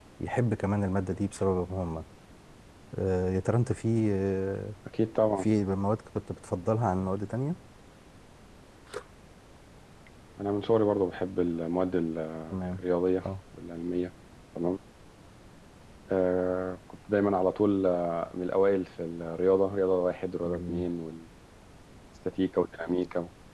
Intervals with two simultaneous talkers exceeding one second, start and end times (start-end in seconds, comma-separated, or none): none